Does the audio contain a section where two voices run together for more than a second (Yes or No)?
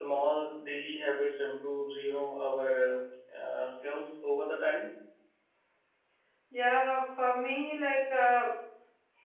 No